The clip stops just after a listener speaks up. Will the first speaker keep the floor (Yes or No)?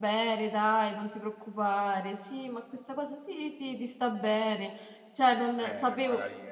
No